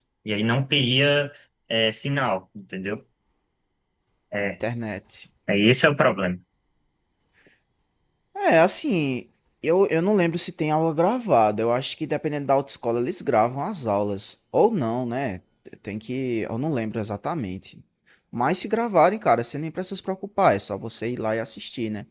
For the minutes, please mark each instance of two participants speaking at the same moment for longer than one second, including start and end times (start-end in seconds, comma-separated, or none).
none